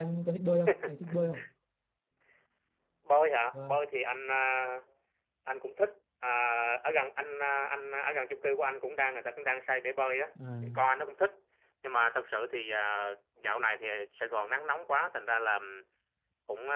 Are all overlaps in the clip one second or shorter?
Yes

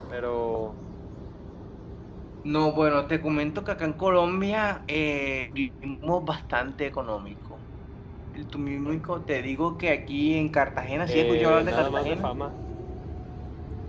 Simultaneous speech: Yes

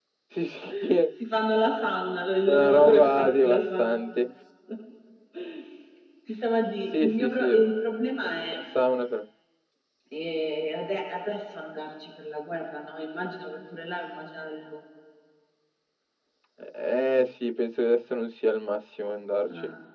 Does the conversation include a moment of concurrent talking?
Yes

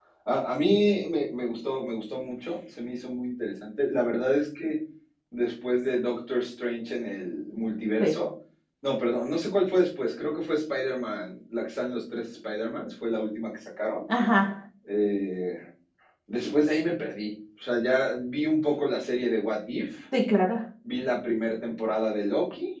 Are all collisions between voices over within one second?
Yes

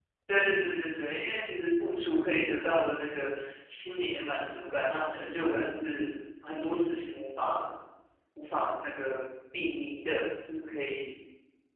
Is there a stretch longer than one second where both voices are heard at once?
No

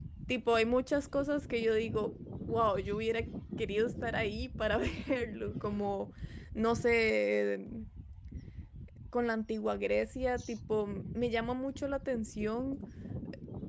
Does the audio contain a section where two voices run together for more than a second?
No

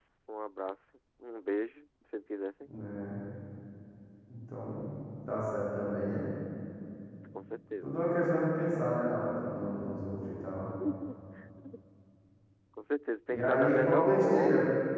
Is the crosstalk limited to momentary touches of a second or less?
No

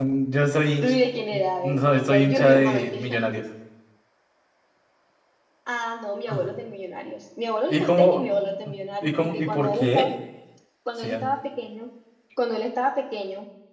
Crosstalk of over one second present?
Yes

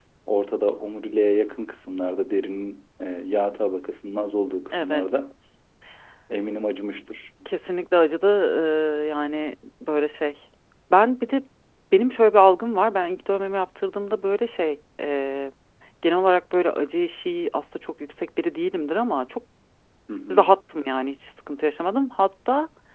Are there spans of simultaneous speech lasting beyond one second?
No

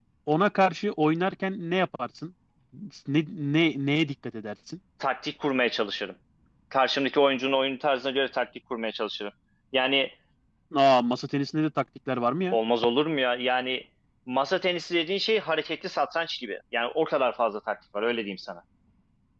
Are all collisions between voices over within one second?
Yes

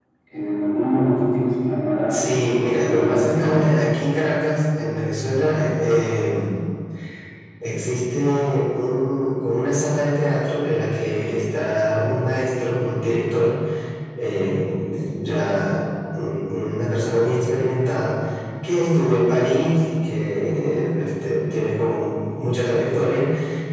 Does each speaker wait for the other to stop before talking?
No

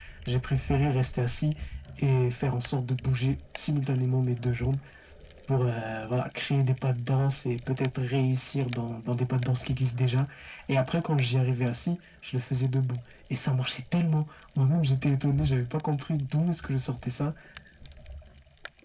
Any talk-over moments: No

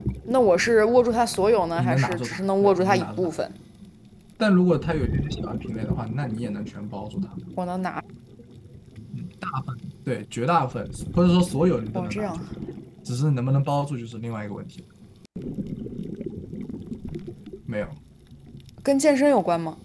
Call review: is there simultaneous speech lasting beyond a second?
Yes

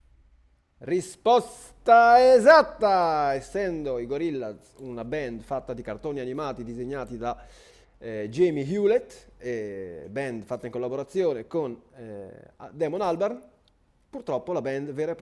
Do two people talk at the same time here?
No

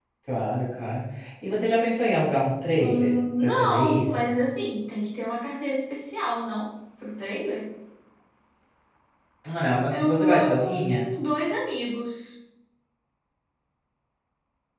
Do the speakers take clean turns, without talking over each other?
No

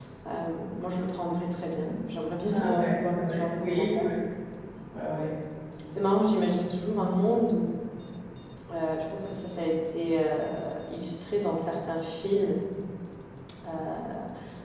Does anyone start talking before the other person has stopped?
Yes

